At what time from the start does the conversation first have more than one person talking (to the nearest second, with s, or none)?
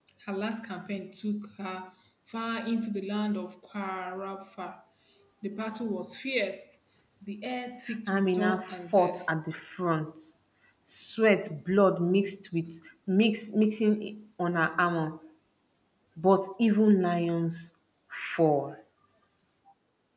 8 s